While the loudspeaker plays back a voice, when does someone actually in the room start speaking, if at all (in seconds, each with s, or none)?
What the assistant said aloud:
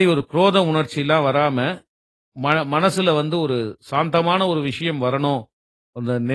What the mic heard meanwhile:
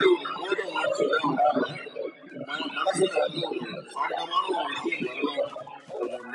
none